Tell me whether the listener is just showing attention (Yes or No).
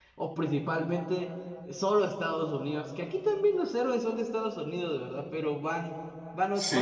Yes